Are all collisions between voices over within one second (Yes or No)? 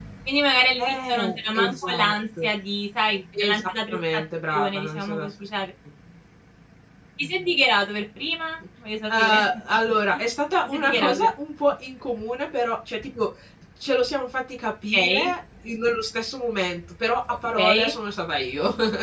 No